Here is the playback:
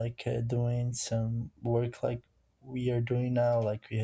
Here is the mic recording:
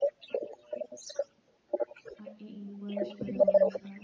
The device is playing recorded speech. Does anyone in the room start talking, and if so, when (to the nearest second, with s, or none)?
2 s